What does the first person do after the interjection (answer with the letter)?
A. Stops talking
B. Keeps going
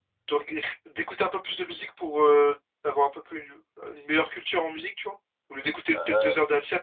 B